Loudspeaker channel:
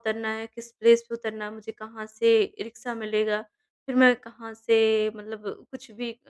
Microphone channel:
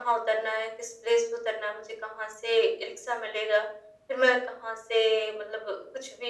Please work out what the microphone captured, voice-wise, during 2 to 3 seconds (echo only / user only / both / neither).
echo only